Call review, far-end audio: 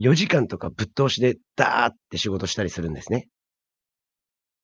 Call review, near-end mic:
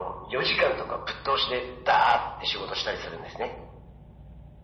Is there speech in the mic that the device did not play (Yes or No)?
No